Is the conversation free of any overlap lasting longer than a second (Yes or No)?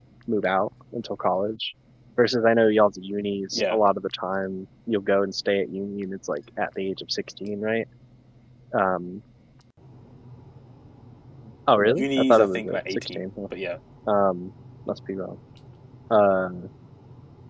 No